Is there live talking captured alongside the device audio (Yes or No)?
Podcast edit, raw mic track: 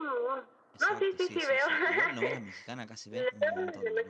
Yes